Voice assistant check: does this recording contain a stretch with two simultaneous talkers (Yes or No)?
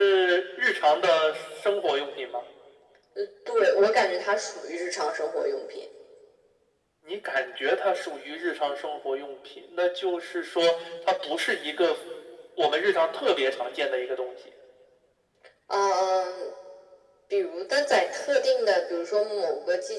No